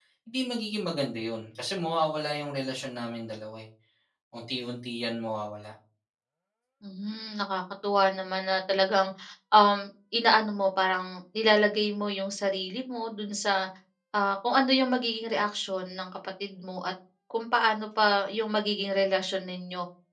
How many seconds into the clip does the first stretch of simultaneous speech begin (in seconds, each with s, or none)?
none